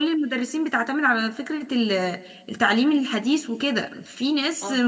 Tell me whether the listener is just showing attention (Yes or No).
Yes